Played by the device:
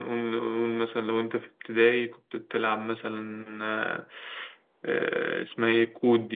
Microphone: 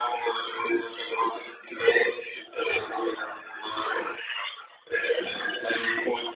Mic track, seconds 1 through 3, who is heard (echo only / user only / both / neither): echo only